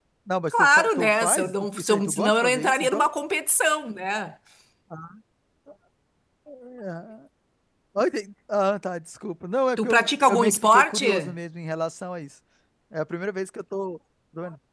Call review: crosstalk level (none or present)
present